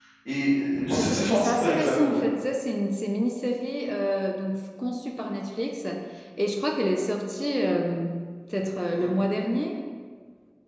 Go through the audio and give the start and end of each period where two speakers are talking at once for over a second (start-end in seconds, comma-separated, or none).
0.9-2.2